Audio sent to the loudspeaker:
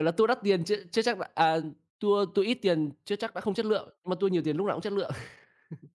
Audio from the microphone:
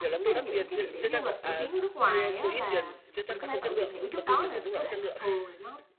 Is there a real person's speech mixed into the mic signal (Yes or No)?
Yes